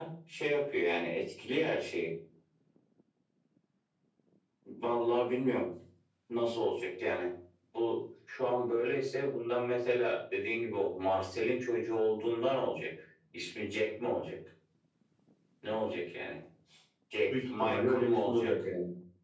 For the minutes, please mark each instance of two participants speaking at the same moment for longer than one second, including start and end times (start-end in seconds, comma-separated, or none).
17.3-18.6